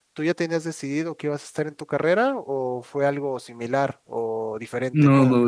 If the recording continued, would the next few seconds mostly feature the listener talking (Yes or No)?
Yes